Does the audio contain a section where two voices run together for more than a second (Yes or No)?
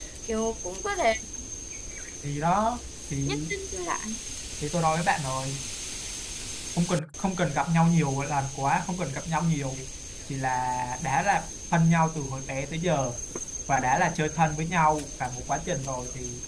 No